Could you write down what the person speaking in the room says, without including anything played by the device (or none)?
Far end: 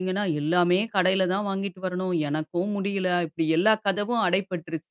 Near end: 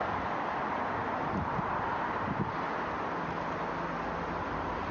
none